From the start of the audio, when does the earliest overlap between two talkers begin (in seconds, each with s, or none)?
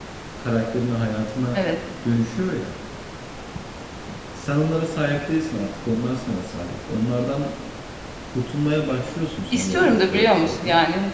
9.5 s